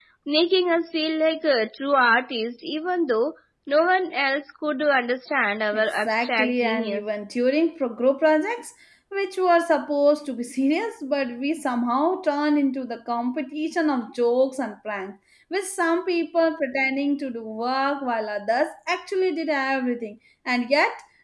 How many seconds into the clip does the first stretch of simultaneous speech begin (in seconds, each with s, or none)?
5.7 s